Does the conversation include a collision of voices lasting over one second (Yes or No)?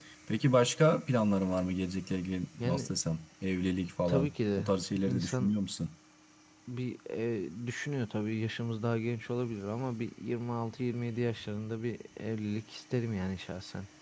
Yes